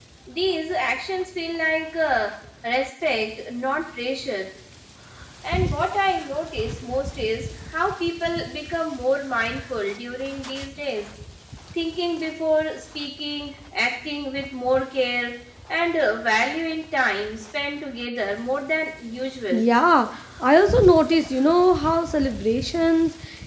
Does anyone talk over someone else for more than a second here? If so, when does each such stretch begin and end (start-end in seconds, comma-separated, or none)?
none